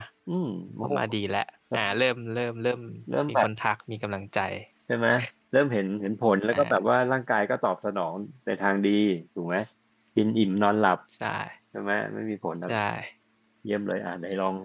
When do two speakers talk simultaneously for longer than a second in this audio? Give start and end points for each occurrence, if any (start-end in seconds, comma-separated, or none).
none